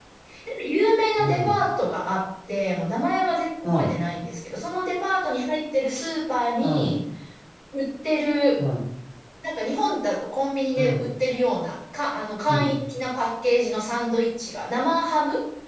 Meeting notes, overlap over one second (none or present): none